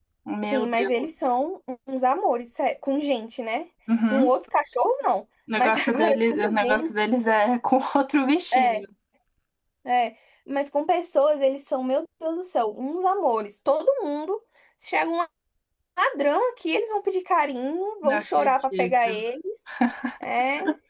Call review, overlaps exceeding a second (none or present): present